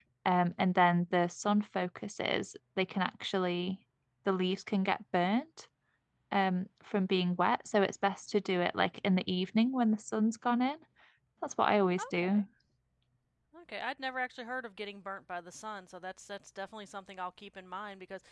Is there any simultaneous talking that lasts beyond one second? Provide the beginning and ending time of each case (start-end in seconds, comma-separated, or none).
none